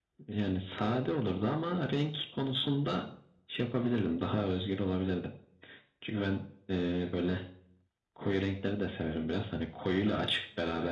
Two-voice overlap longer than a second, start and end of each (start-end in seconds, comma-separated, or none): none